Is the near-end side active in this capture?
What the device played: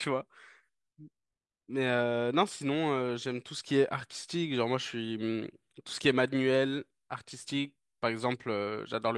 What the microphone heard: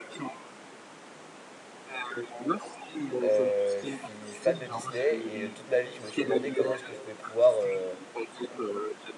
Yes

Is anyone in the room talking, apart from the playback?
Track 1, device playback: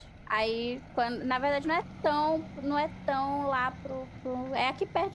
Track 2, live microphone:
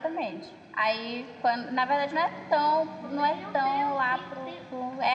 Yes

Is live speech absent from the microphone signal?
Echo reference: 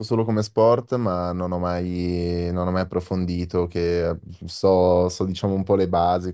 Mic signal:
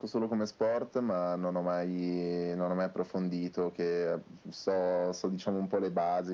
Yes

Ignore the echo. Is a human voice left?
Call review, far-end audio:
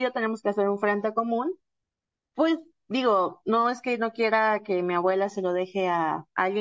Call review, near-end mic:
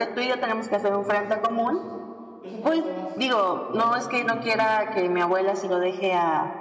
Yes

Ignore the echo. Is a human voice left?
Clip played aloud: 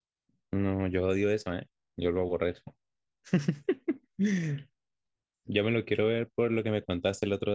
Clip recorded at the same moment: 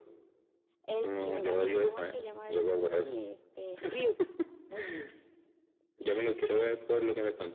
Yes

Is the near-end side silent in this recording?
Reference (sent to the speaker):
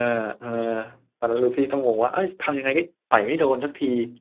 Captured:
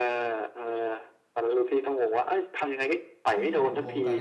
No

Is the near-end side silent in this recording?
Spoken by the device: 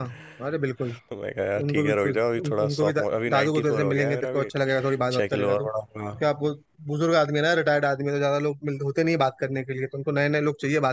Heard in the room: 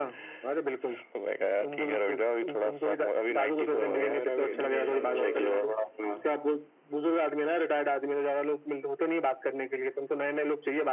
No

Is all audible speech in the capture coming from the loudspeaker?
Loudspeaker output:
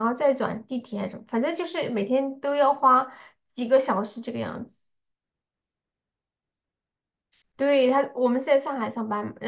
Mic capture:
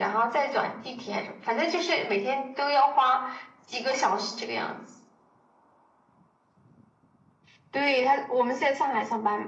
Yes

